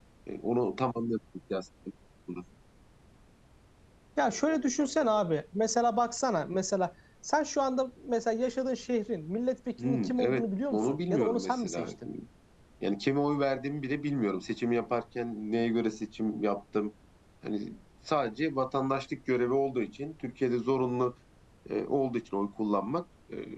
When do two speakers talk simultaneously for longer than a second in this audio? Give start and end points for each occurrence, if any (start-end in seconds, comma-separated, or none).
9.8-11.9